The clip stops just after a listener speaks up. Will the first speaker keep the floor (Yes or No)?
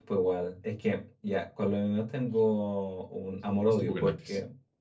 Yes